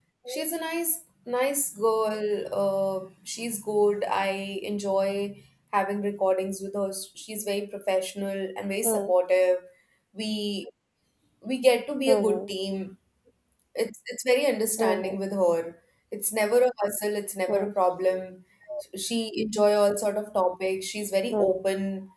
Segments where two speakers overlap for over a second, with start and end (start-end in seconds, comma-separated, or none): none